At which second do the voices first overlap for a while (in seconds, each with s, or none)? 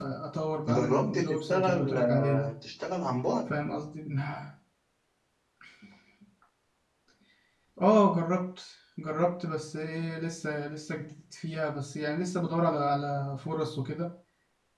0.7 s